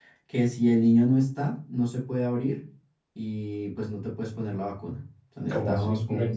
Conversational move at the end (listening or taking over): taking over